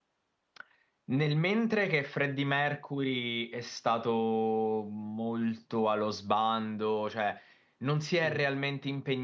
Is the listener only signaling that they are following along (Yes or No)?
Yes